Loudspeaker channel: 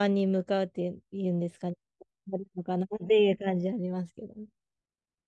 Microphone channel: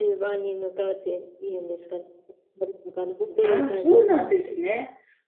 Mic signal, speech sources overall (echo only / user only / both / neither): both